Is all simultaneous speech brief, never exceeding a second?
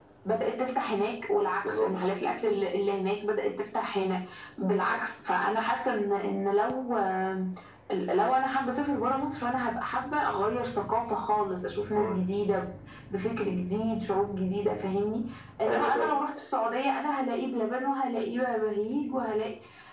Yes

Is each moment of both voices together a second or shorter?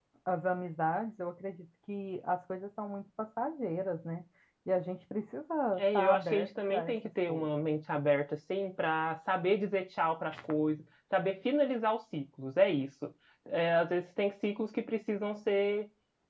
No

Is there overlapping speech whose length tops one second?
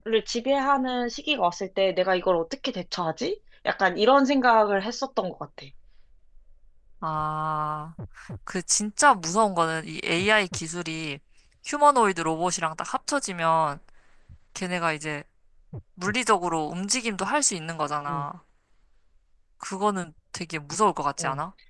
No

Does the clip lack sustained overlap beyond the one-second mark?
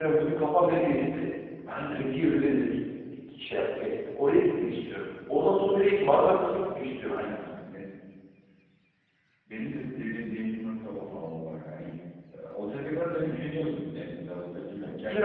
Yes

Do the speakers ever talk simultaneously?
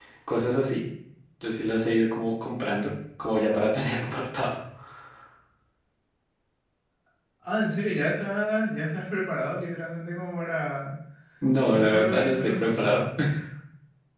Yes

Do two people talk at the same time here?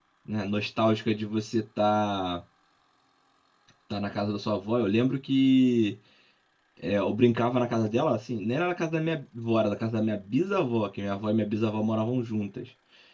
No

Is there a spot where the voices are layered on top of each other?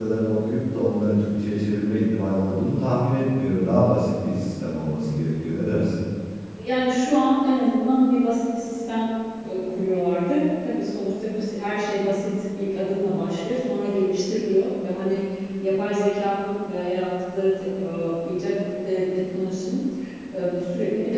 No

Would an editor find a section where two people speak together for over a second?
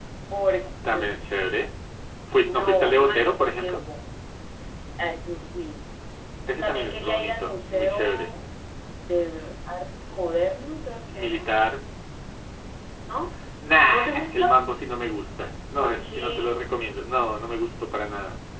Yes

